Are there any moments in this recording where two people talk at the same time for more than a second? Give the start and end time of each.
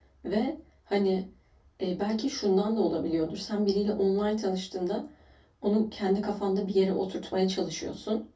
none

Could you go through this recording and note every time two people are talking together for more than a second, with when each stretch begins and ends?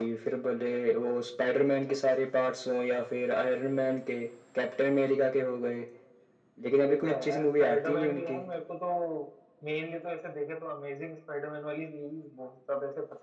6.8-8.4

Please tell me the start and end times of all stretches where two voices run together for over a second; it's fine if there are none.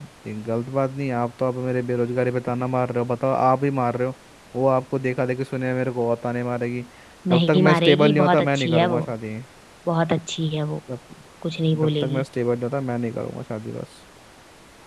7.3-9.0

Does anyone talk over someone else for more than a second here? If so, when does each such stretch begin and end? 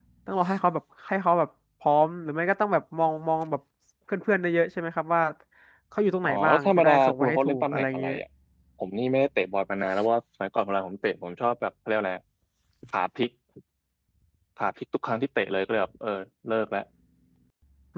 6.2-8.2

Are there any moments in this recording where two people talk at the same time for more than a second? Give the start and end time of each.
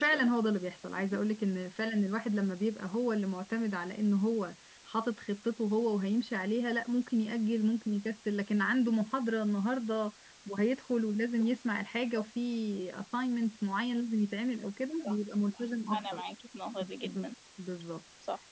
none

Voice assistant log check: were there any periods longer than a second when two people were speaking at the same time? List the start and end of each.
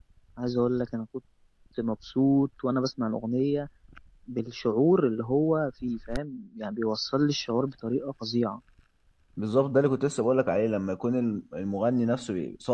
none

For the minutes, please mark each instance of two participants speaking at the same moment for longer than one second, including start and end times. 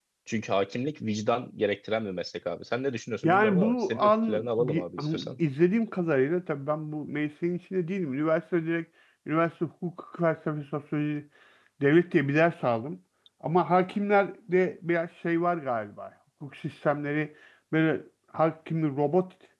3.2-5.3

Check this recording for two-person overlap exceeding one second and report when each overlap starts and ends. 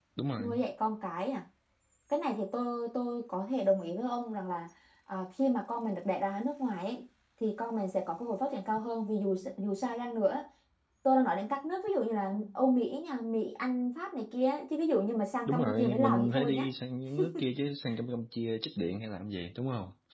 15.5-16.7

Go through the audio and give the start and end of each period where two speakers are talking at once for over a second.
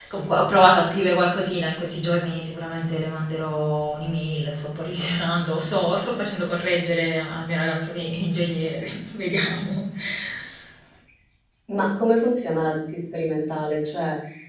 none

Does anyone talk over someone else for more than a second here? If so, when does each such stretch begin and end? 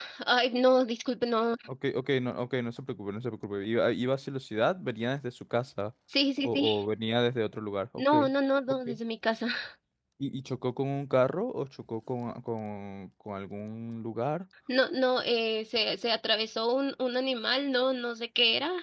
none

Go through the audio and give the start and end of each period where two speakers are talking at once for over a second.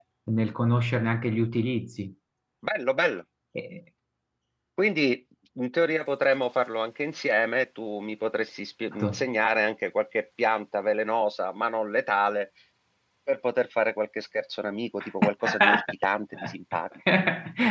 none

